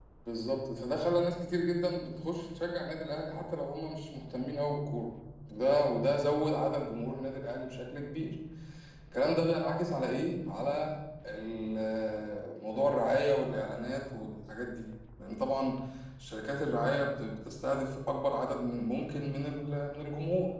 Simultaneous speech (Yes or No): No